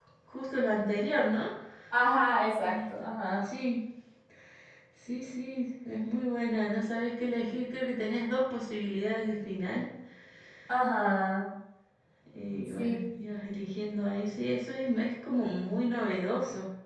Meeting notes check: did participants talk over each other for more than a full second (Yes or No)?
No